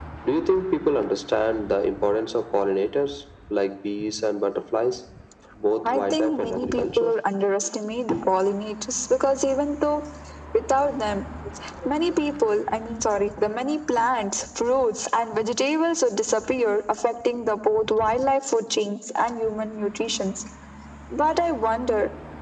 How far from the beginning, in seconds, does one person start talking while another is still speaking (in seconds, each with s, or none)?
5.8 s